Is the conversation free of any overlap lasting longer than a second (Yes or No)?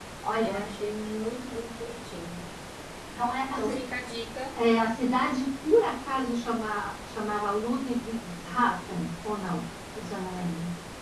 Yes